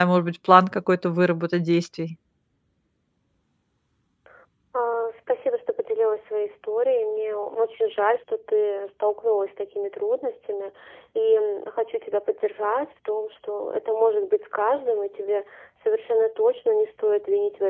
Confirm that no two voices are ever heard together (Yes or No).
Yes